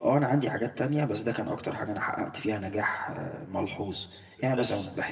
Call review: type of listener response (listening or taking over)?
listening